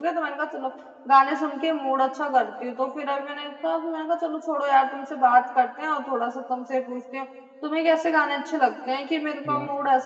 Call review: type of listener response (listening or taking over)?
listening